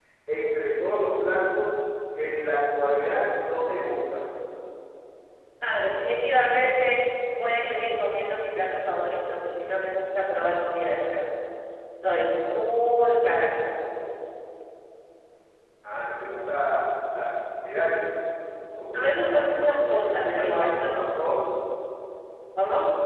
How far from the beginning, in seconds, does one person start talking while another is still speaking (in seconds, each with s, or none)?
18.9 s